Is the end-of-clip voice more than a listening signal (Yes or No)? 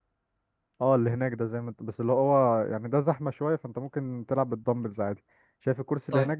No